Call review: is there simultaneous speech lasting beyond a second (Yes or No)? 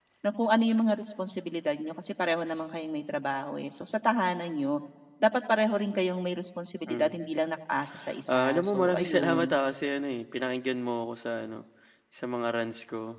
Yes